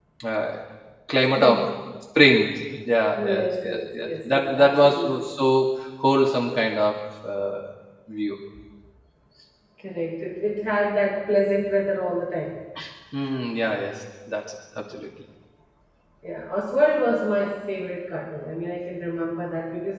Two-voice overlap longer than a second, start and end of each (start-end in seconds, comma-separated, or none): 3.2-5.1